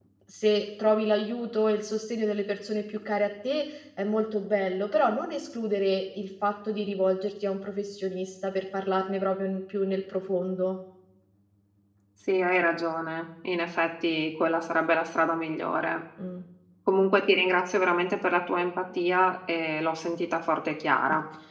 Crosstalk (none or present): none